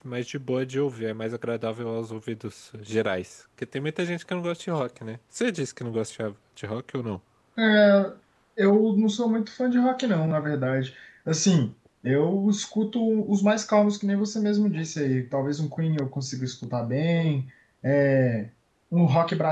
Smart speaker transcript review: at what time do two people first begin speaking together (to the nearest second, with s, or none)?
none